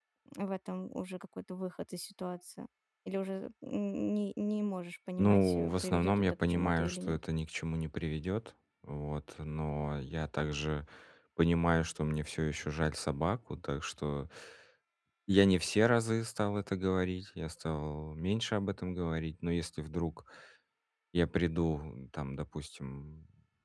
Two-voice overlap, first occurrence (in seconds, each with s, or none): 5.2 s